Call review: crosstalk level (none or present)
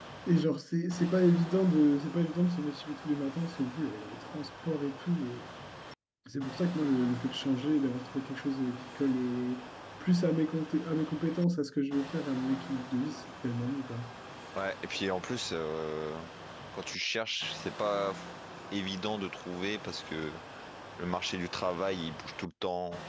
none